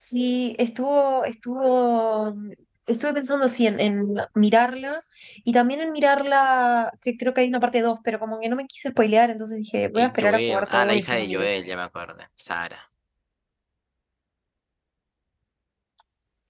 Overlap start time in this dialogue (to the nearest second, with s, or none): 10 s